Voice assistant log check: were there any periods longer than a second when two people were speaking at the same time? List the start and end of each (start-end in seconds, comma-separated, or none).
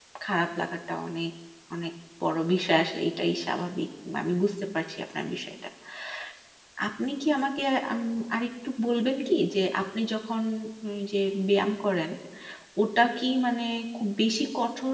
none